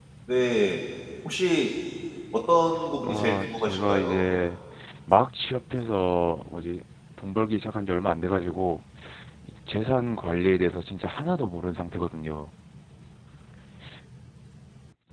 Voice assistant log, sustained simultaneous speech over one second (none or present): present